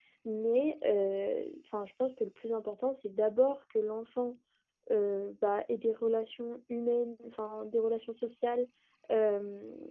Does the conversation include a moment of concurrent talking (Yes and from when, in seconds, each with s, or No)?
No